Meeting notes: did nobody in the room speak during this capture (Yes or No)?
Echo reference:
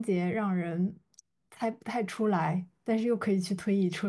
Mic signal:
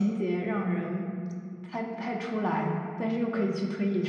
Yes